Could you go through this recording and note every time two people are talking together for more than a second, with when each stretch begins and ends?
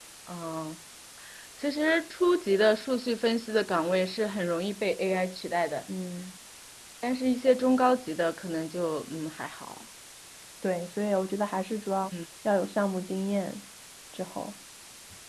none

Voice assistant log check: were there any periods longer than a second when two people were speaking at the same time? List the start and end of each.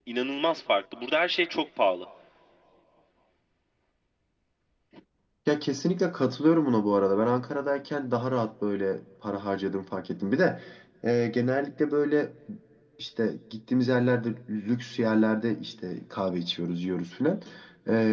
none

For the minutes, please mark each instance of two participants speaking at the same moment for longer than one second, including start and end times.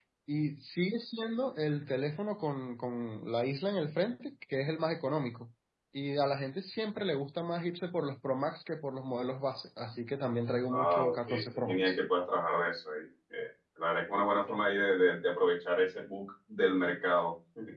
10.7-12.0

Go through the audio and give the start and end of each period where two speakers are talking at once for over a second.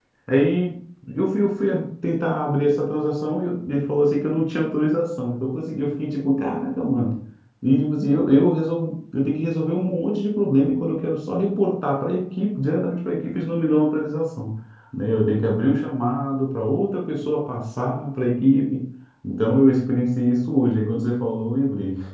none

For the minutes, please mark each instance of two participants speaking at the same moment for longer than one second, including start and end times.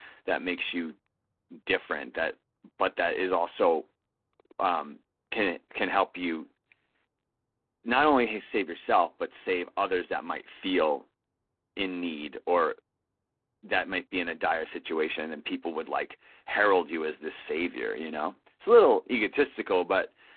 none

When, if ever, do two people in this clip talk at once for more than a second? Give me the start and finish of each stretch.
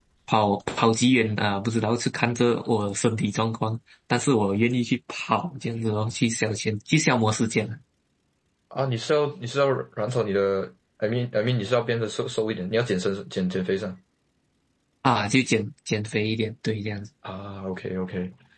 none

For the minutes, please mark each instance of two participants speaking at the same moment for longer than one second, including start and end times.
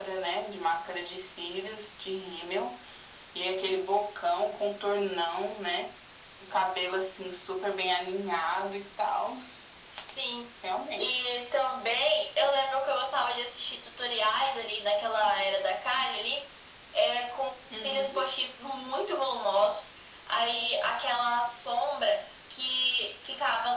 none

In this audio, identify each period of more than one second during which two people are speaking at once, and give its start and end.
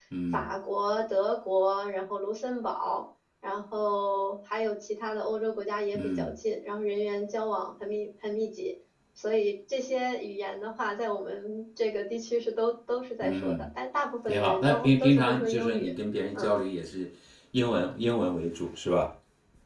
14.3-15.9

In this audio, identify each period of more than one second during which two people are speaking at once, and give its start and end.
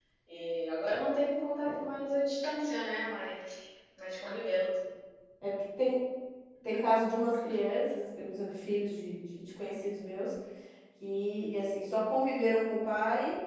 none

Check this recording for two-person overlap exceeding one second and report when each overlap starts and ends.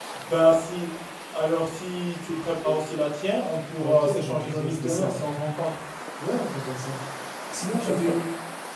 3.8-5.2

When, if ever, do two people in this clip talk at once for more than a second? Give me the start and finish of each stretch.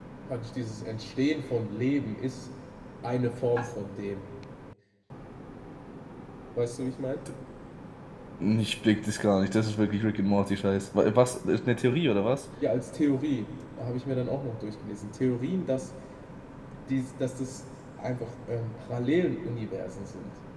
none

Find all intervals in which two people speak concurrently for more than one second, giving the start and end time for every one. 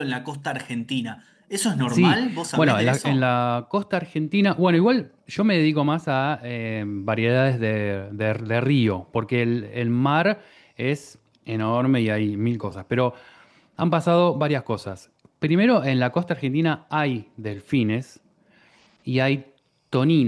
1.9-3.2

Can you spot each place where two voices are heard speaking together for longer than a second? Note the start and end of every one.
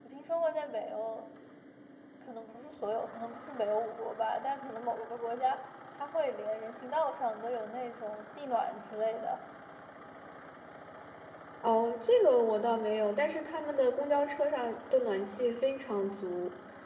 none

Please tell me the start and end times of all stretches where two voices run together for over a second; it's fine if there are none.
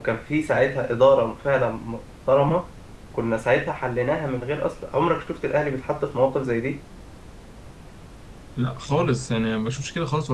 none

